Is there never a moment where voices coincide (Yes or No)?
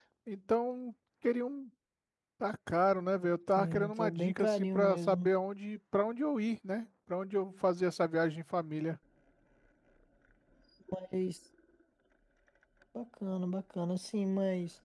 No